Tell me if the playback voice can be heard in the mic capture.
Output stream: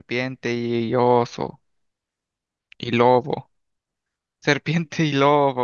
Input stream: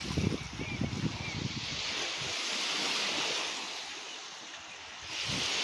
No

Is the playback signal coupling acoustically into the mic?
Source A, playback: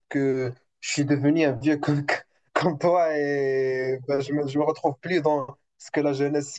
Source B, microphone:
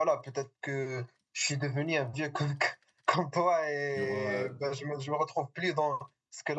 Yes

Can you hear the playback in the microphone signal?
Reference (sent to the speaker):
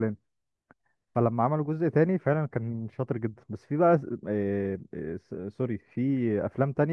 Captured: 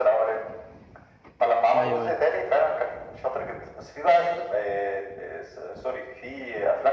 Yes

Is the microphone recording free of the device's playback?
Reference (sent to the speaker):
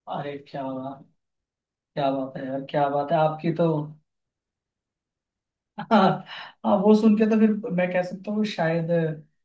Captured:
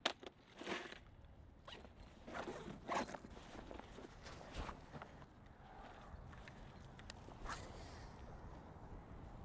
Yes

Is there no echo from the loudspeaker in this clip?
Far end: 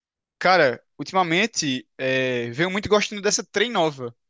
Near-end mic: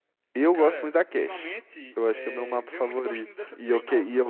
No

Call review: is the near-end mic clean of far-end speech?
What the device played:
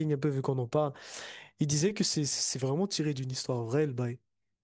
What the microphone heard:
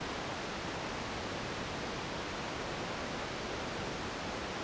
Yes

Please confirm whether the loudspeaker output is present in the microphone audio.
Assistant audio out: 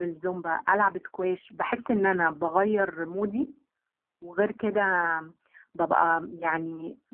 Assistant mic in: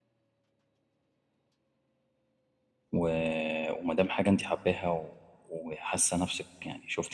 No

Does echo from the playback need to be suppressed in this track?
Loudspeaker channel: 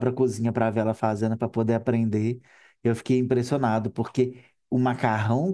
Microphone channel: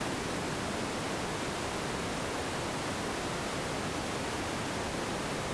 No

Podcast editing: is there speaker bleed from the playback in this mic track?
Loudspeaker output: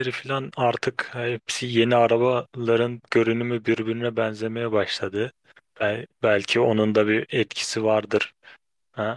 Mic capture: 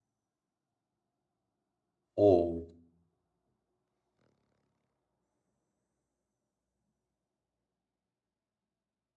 No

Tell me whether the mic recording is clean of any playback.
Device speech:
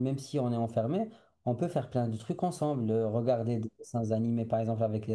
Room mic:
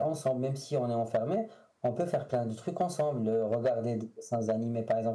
No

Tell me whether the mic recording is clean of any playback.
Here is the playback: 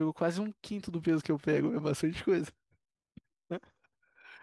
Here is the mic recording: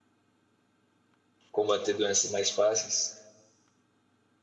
Yes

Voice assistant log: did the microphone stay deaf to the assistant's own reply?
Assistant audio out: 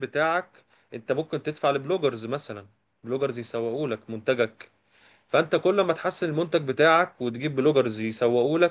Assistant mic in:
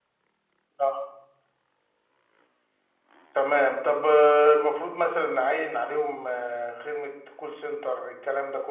Yes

